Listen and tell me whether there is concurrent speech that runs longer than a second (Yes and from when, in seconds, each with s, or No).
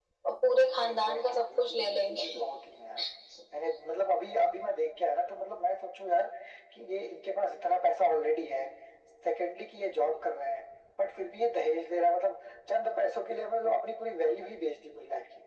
Yes, from 0.9 s